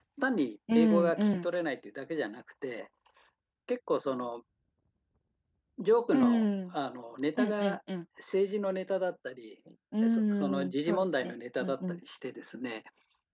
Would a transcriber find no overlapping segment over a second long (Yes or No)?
No